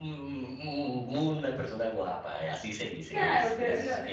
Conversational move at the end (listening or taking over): taking over